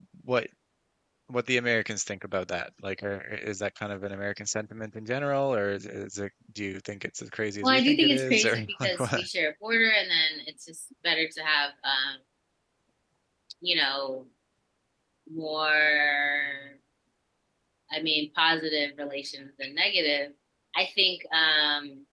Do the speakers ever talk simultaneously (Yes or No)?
Yes